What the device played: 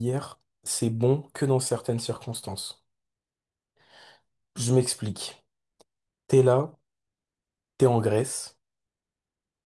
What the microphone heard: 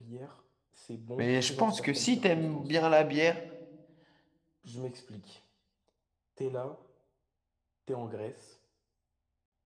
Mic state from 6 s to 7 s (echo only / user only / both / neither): echo only